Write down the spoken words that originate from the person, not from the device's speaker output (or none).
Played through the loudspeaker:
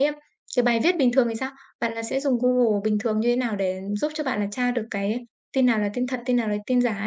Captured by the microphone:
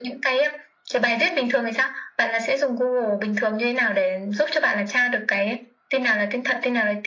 none